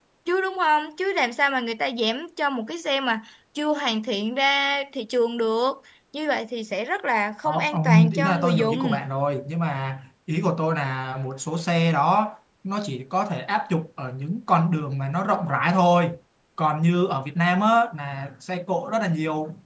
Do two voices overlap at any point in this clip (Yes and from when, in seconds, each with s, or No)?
Yes, from 7.5 s